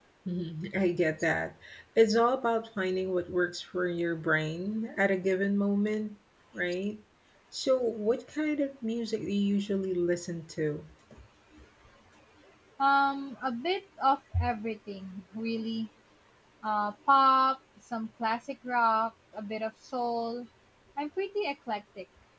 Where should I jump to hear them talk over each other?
none

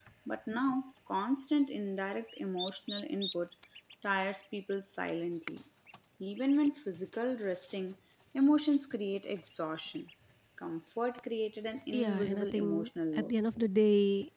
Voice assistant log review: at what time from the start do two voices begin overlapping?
12 s

